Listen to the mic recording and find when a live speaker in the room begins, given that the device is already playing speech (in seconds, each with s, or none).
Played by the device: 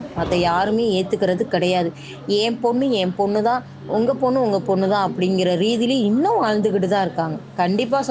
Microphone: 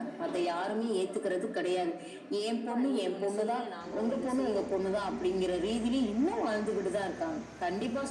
2.7 s